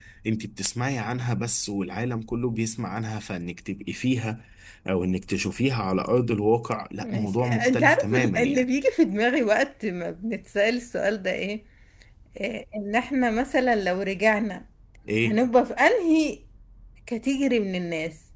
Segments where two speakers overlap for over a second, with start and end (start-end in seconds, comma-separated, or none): 7.0-8.6